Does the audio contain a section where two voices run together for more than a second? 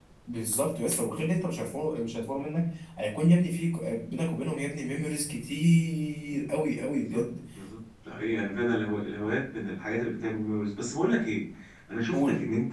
No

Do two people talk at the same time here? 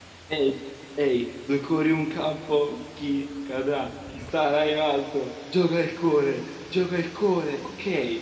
No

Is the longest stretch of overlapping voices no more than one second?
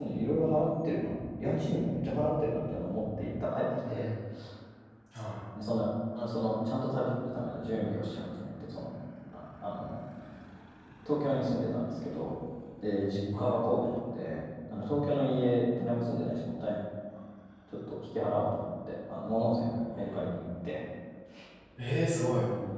Yes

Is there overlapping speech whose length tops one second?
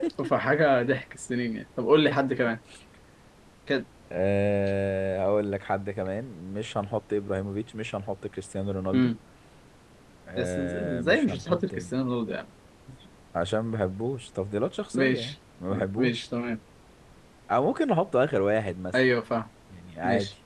Yes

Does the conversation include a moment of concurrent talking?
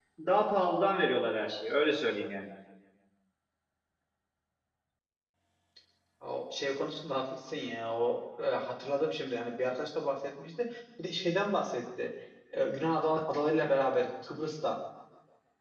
No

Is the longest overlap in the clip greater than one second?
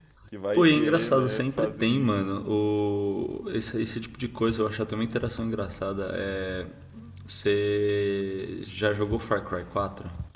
Yes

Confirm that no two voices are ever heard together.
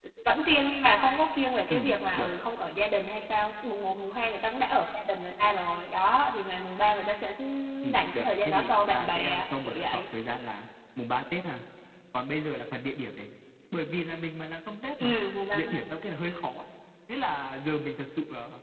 No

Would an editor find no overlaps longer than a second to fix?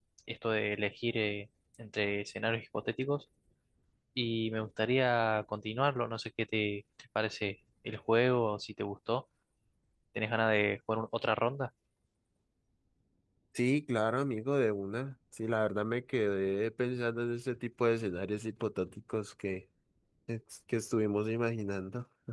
Yes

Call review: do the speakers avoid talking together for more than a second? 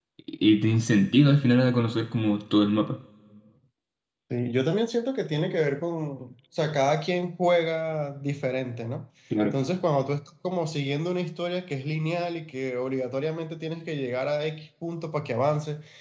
Yes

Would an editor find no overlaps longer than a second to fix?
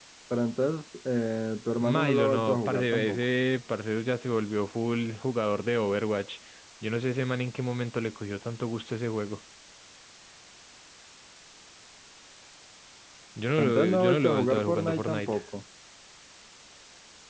No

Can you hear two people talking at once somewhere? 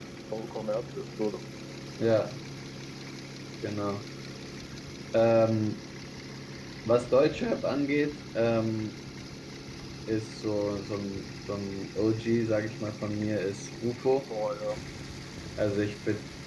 No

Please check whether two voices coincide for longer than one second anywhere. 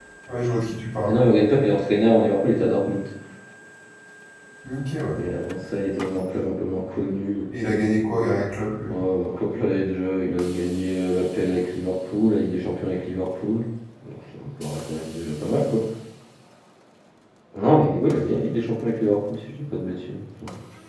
No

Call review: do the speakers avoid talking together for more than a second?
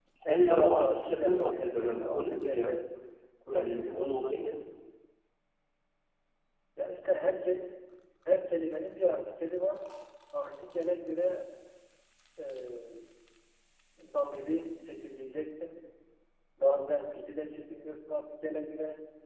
No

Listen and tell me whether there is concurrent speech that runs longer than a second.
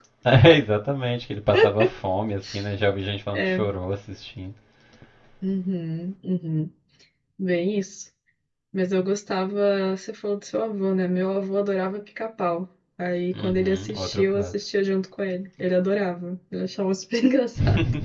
Yes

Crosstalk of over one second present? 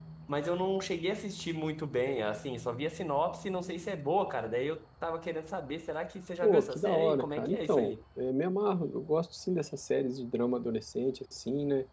Yes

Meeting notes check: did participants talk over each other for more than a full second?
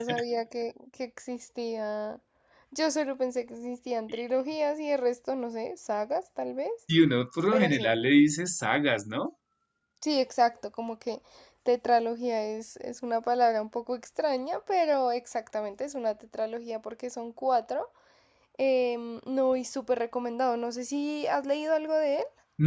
No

